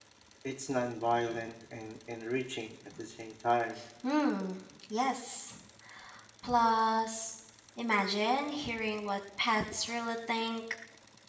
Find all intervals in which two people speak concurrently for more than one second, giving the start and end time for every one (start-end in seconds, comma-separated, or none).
none